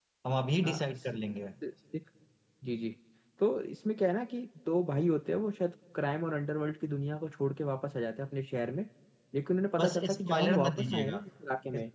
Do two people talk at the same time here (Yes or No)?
Yes